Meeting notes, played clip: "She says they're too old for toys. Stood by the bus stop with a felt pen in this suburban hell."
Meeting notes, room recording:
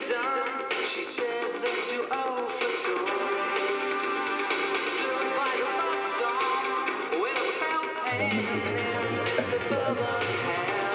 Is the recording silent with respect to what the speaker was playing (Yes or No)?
No